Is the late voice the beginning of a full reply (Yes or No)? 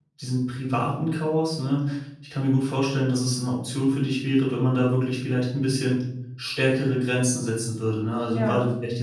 No